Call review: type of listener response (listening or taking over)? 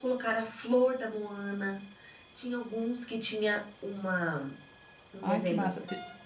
taking over